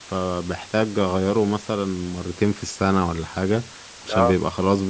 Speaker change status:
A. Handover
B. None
B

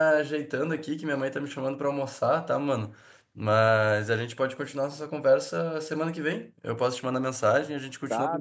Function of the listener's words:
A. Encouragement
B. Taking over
B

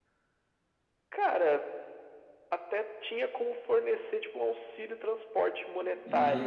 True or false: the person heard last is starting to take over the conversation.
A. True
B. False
A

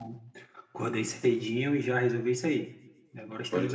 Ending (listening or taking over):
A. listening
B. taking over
B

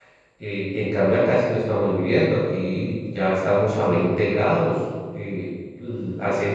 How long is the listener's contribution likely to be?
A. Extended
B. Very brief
B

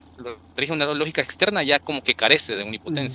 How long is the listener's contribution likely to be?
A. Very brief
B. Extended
B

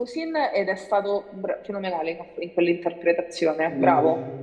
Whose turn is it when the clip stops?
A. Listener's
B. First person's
A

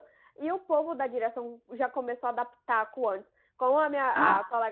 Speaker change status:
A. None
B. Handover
A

